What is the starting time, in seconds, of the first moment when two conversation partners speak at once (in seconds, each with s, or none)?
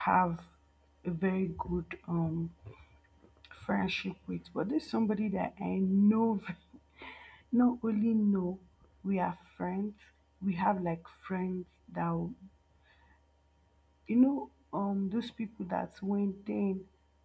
none